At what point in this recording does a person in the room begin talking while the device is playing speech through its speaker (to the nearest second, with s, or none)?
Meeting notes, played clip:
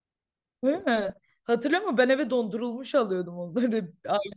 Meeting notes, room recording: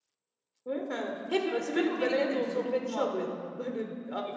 1 s